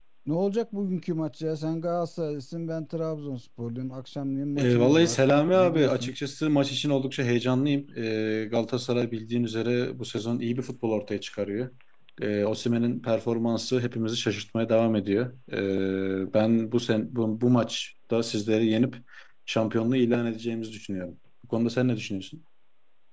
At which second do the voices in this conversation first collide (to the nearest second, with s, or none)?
5 s